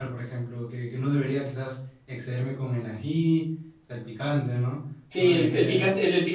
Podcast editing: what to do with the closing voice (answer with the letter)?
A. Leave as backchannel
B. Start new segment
B